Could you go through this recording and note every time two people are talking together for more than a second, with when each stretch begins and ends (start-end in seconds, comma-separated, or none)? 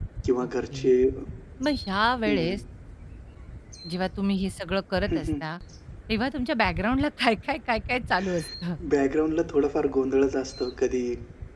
none